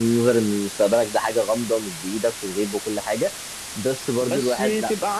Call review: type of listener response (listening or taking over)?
taking over